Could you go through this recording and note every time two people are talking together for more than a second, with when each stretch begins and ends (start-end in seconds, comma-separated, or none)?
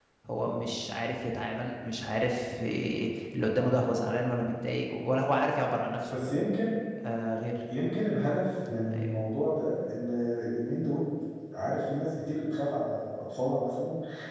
none